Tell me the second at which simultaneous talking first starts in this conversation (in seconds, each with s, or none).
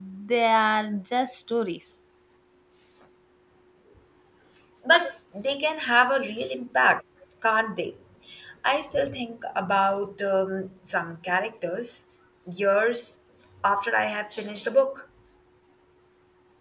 none